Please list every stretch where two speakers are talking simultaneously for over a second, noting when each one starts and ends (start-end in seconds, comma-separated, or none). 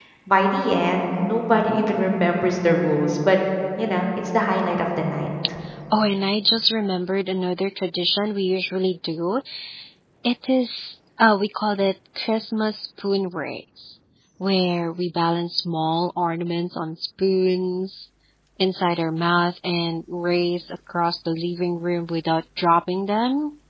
none